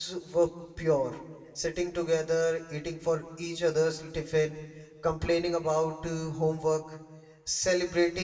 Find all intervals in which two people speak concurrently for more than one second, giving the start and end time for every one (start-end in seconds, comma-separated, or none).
none